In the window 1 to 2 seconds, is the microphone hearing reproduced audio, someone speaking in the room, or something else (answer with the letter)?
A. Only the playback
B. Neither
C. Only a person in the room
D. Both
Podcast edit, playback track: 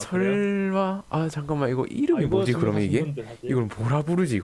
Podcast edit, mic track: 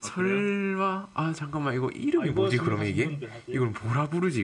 A